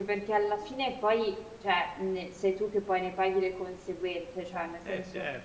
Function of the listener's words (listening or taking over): listening